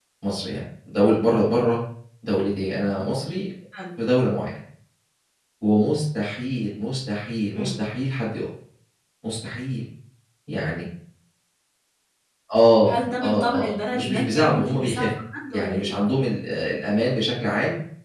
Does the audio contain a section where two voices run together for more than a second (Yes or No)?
Yes